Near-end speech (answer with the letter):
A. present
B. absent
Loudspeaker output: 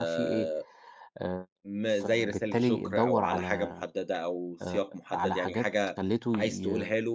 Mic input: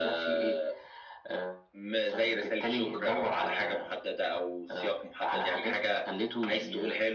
B